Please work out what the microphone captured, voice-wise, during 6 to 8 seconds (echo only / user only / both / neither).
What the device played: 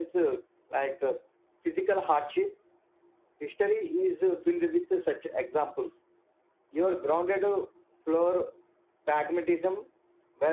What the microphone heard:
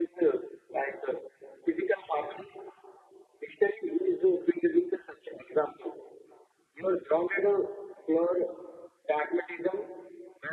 echo only